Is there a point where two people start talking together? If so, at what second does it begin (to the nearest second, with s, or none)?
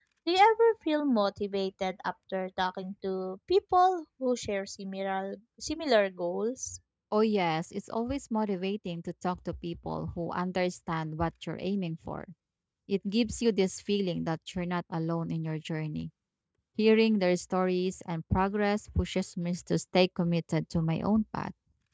none